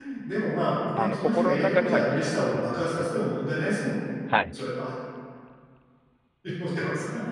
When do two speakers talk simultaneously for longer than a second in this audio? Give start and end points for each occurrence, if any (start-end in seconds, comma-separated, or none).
1.0-3.1